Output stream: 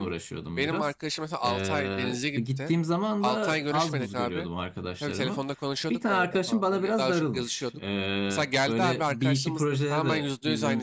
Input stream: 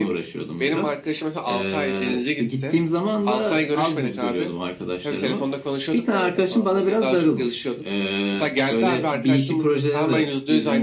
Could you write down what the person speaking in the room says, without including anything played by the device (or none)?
none